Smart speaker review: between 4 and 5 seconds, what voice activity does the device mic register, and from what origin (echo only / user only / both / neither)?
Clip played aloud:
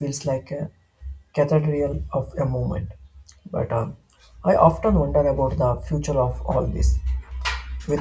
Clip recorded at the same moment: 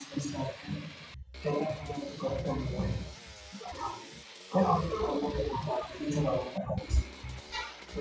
echo only